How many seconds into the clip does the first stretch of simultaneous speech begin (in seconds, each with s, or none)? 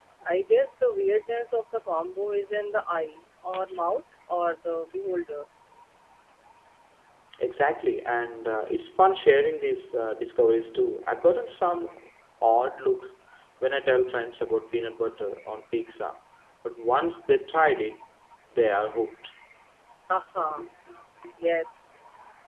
none